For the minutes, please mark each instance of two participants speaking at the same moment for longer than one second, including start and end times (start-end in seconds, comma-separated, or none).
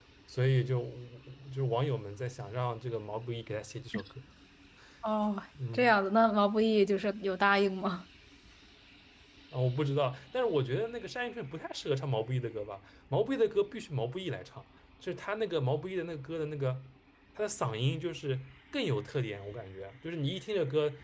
none